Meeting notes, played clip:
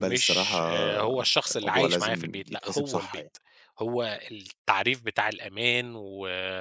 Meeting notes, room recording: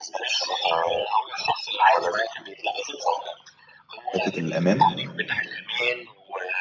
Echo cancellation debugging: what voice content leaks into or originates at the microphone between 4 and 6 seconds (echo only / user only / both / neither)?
both